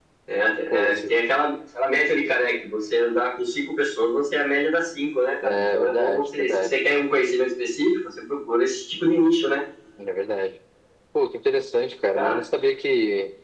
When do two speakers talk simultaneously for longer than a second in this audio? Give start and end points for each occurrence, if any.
5.4-6.8

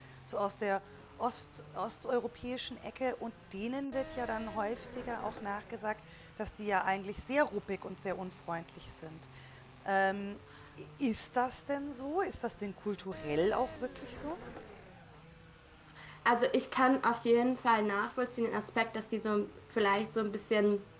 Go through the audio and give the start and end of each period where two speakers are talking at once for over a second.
none

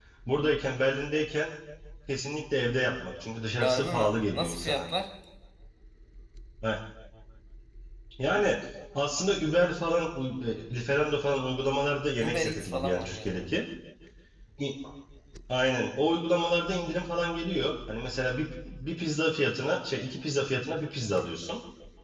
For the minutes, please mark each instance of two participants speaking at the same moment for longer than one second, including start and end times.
3.6-4.9, 12.2-13.5

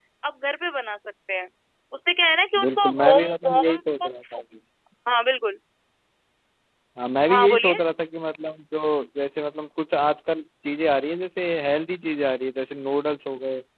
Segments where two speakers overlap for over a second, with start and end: 2.6-3.8

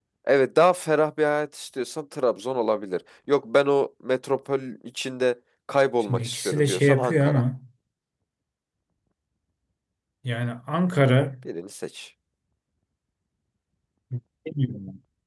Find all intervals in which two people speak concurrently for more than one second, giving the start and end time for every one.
6.1-7.4

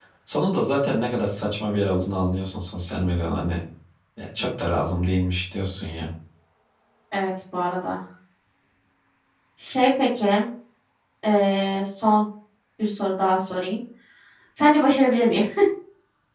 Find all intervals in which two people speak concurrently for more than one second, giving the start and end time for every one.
none

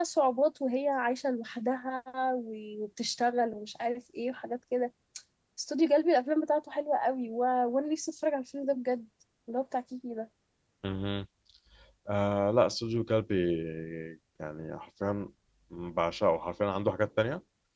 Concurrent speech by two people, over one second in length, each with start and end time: none

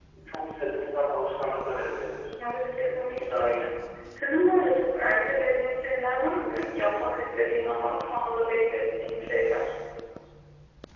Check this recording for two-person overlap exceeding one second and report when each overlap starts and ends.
none

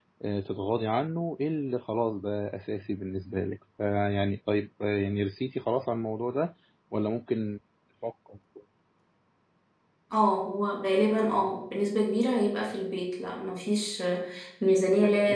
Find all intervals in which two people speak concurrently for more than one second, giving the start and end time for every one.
none

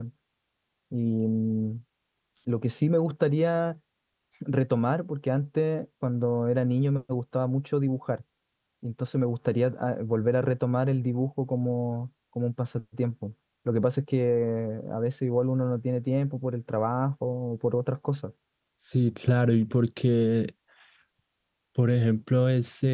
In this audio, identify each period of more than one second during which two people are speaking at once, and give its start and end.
none

